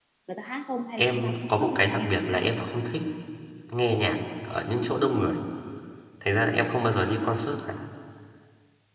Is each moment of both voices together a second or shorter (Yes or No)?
No